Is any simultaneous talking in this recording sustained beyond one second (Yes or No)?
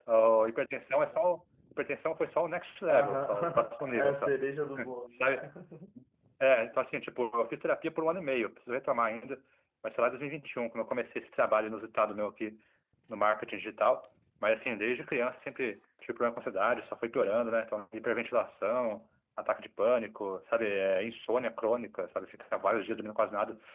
Yes